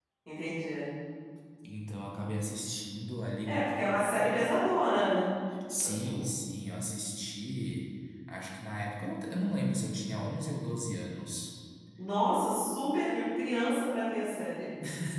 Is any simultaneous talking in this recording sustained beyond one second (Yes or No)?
No